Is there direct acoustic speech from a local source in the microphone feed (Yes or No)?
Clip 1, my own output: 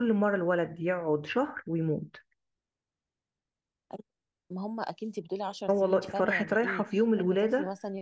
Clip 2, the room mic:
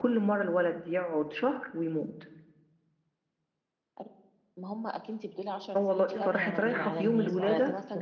Yes